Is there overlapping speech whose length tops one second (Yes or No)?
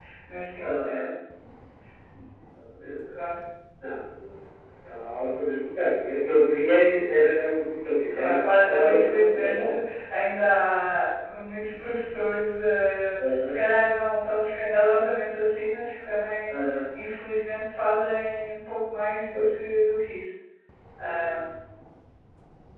Yes